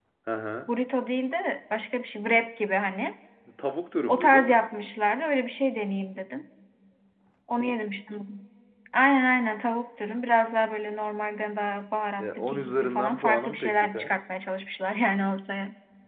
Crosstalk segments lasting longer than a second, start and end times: 12.2-14.1

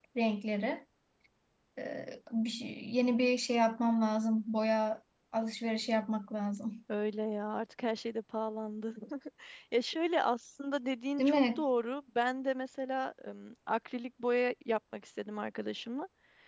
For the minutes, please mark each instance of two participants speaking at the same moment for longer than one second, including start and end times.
none

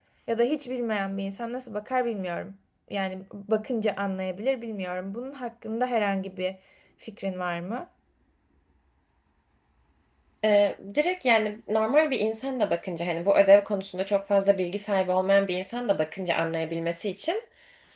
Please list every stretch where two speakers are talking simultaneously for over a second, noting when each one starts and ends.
none

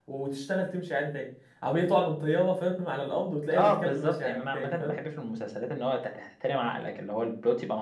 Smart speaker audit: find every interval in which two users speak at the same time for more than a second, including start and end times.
3.6-5.0

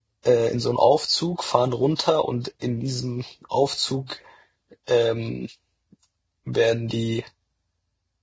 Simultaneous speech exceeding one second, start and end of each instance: none

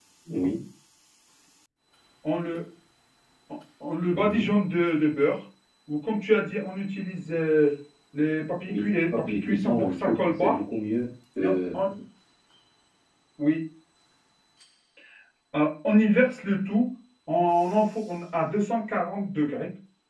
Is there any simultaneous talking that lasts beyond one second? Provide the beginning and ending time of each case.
8.7-10.6

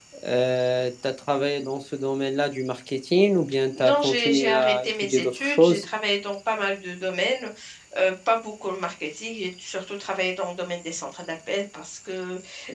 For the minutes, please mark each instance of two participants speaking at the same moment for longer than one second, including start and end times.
3.8-5.8

